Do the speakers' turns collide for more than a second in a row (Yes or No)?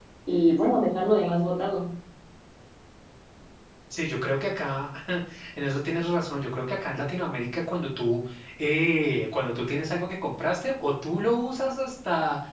No